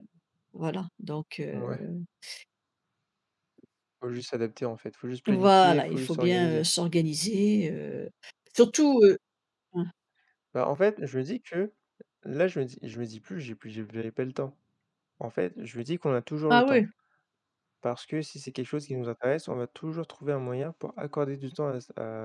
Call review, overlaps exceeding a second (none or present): present